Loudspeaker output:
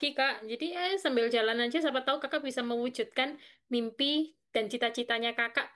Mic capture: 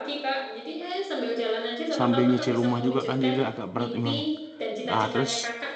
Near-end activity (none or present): present